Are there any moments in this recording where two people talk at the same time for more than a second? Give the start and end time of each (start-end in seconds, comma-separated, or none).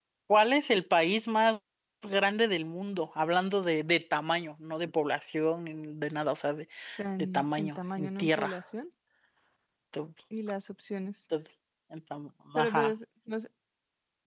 7.2-8.5